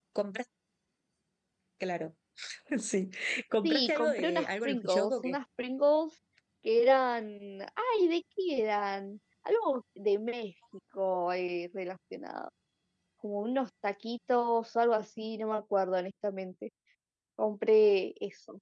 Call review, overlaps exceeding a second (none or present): present